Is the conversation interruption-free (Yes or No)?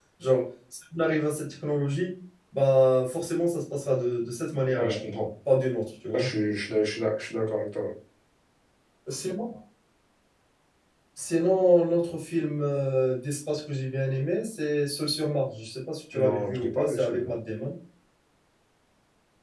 No